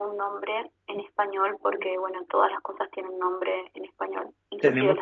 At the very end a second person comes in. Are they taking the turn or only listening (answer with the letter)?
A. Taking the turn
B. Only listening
A